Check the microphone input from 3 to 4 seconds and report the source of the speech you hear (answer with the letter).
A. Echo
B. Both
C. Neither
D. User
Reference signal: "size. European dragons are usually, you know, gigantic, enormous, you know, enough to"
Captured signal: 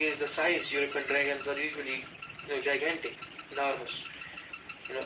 A